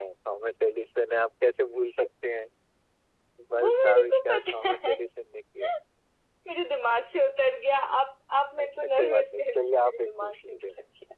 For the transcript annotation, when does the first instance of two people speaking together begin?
4 s

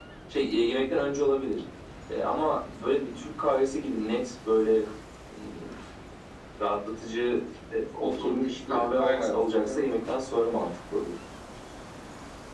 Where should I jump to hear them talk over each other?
8 s

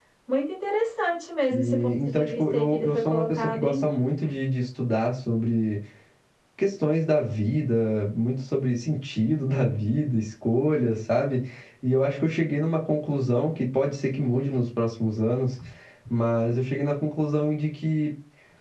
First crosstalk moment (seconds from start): 2 s

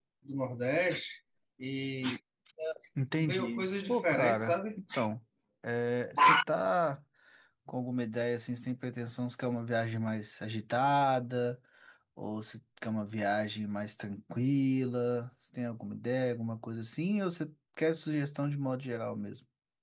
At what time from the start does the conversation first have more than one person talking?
3 s

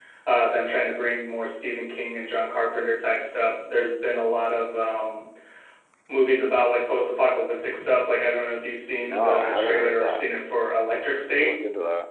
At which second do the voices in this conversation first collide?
9 s

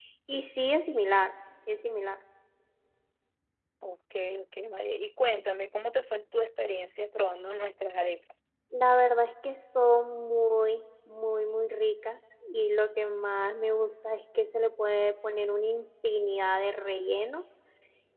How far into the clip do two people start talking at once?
none

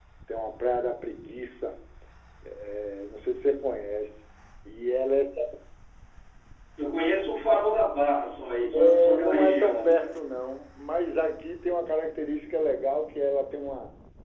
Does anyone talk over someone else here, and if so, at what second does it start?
9 s

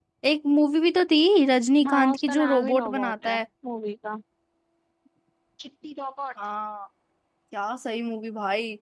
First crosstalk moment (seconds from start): 2 s

